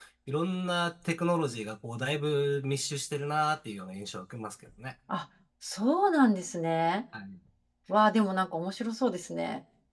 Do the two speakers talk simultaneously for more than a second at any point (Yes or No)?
No